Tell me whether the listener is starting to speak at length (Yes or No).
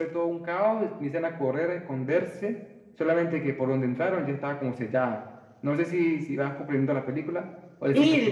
Yes